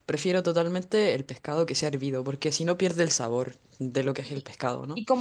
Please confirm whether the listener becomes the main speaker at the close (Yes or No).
Yes